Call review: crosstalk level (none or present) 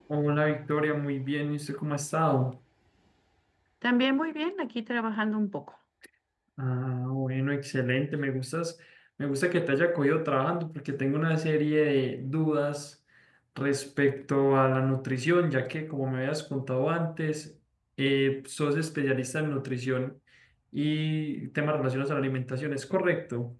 none